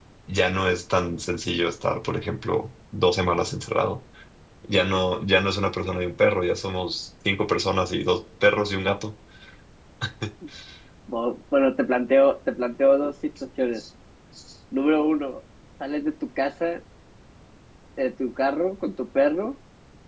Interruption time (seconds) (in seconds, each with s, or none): none